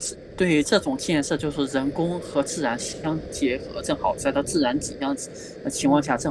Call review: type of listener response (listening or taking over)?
listening